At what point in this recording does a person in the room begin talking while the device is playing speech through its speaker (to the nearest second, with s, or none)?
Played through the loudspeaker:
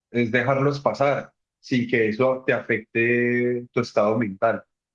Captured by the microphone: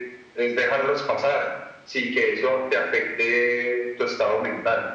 none